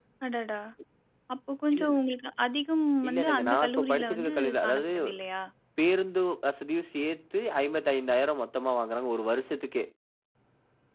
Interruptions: present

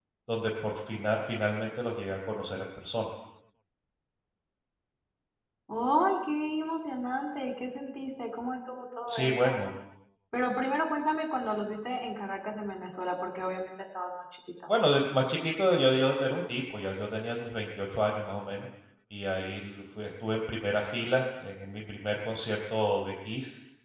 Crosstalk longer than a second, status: none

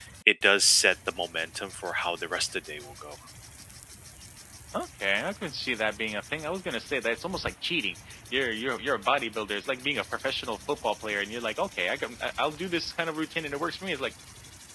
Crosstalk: none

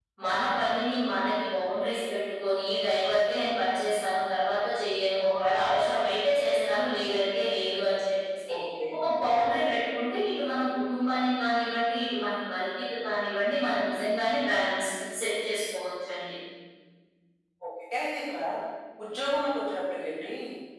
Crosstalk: none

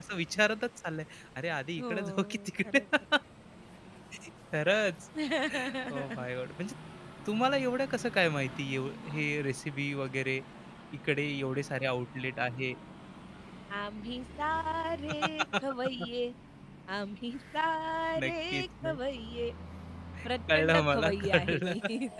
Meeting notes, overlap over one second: present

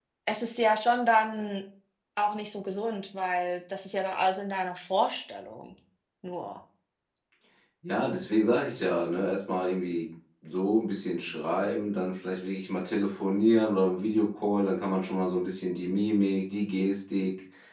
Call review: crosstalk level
none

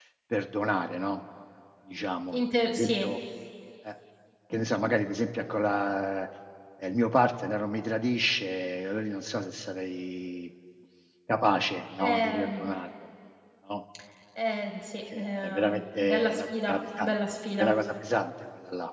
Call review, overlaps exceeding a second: present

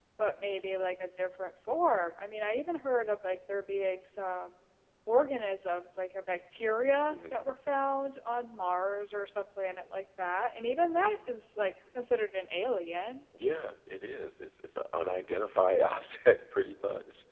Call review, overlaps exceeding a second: none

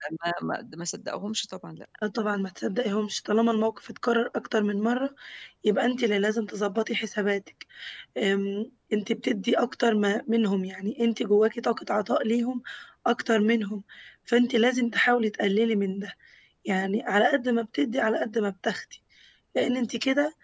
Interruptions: none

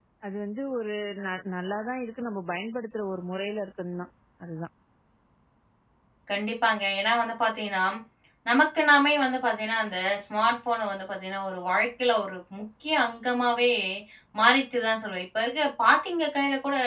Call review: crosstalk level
none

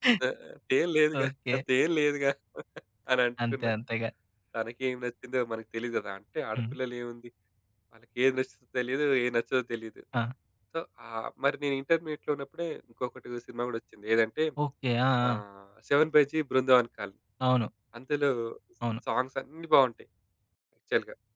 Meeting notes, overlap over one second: none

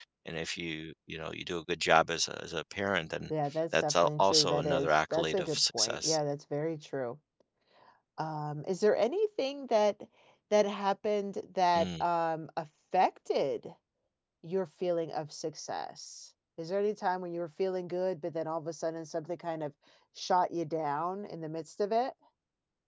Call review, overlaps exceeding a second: present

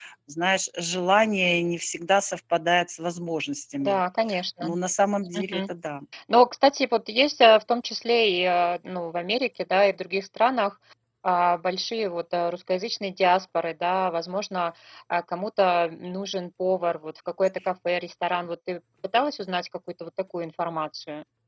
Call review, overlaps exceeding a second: none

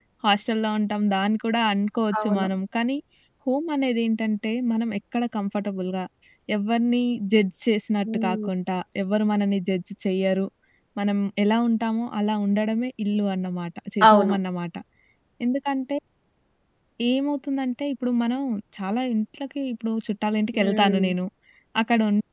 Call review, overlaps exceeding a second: none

